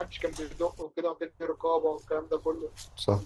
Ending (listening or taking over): listening